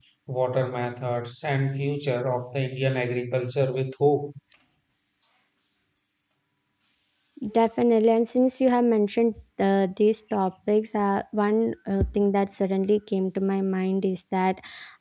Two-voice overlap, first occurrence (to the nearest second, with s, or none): none